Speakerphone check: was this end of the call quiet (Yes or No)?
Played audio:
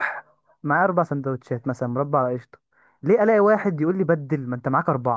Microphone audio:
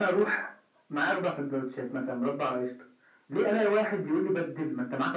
Yes